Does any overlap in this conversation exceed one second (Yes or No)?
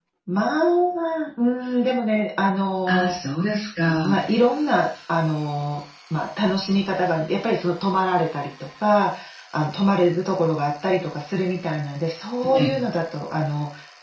No